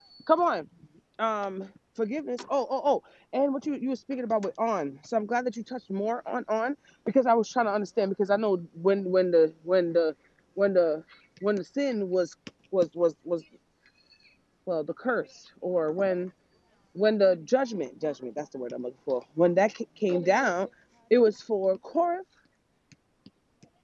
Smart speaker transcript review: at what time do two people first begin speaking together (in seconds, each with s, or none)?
none